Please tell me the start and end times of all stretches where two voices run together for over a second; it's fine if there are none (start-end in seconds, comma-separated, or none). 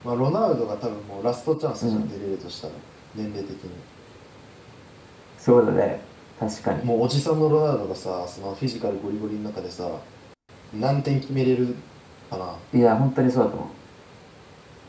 none